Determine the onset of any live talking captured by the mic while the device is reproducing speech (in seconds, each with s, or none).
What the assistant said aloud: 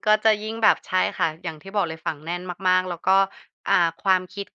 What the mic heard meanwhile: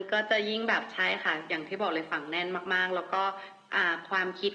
none